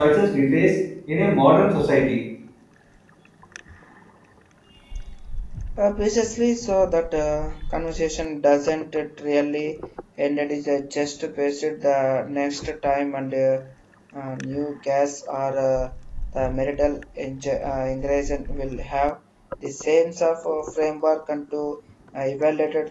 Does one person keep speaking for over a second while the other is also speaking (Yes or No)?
No